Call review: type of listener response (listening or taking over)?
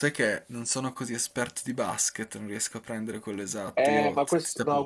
taking over